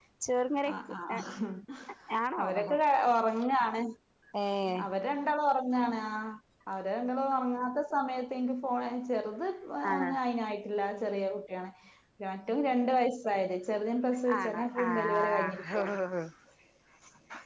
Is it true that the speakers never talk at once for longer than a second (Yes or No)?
No